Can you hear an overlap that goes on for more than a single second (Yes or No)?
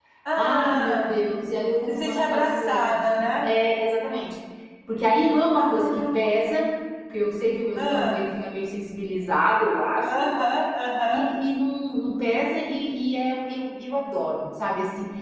Yes